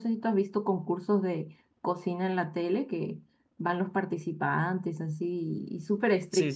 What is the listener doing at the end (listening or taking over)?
taking over